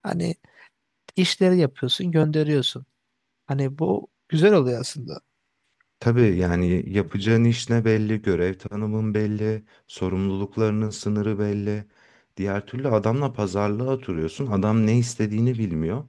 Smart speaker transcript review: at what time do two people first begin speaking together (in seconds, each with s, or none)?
none